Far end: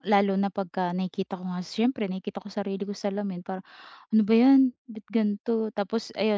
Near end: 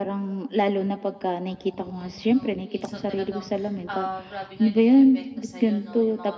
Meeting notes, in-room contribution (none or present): present